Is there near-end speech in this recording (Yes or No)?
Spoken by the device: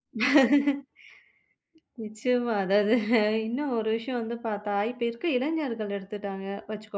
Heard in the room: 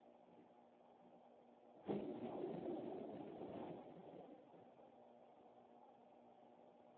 No